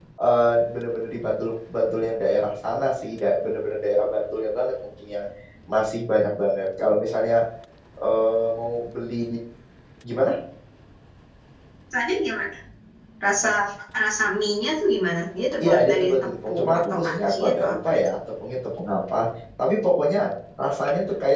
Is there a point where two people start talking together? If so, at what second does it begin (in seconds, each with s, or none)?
15.6 s